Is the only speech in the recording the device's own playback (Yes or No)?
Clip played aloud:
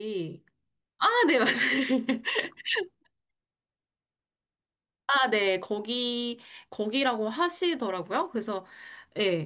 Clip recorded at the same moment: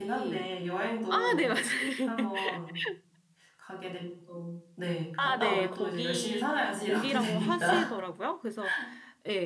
No